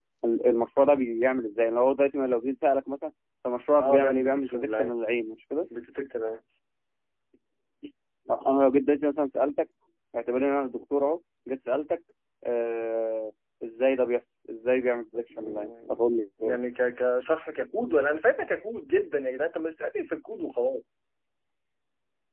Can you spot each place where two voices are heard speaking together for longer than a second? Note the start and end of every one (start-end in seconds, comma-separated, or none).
3.8-5.0, 15.4-16.6